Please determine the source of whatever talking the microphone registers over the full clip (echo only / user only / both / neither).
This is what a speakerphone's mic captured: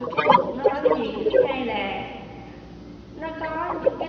both